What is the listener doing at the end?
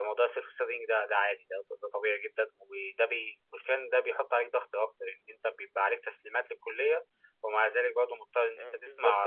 taking over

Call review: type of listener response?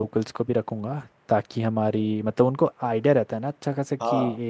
listening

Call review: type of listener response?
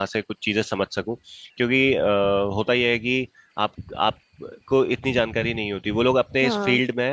listening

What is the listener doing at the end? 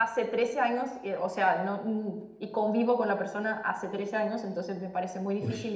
listening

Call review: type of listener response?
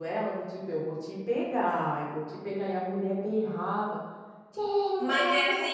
taking over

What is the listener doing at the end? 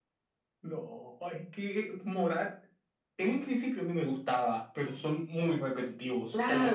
taking over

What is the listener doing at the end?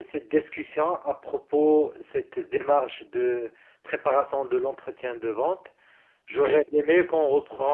listening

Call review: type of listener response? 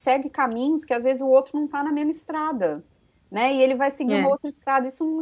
listening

